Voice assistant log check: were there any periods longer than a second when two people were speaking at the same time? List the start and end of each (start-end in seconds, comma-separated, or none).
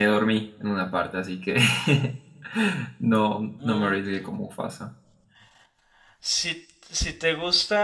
none